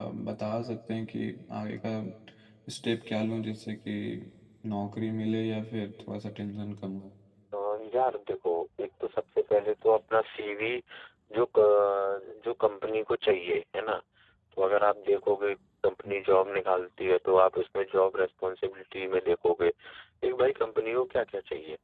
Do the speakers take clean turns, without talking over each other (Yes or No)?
Yes